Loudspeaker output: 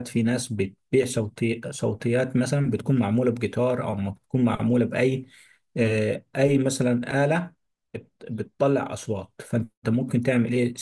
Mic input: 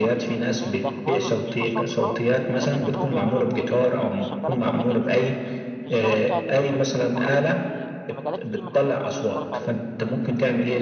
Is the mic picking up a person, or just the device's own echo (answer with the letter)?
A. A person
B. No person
A